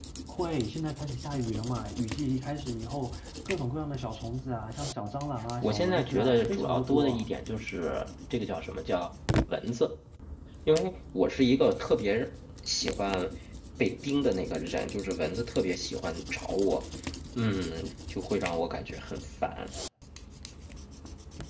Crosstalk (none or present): present